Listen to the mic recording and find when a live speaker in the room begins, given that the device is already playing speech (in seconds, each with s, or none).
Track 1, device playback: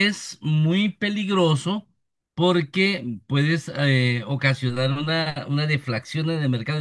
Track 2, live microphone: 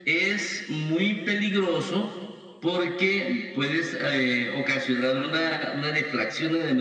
none